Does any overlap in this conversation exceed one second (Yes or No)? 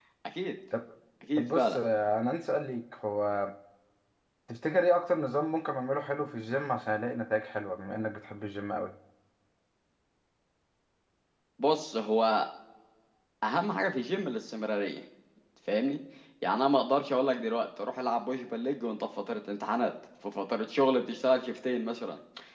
No